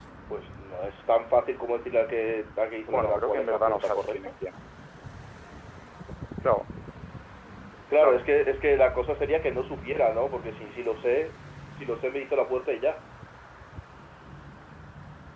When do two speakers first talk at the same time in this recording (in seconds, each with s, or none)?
2.9 s